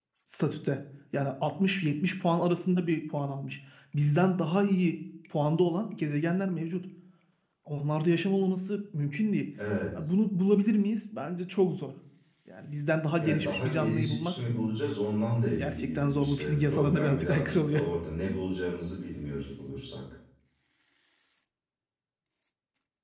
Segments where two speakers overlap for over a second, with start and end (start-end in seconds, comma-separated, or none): 13.2-14.4, 15.6-17.8